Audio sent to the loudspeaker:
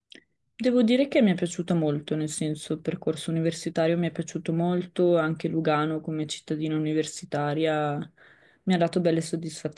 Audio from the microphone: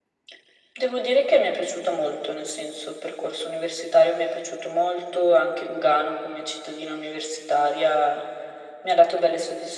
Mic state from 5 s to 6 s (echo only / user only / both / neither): echo only